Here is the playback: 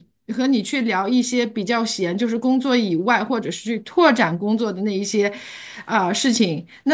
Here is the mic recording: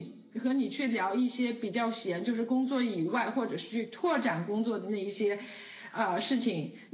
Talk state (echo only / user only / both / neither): echo only